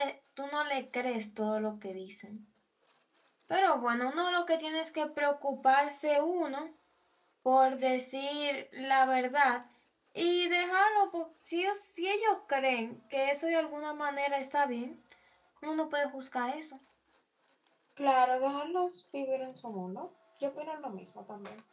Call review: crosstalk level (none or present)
none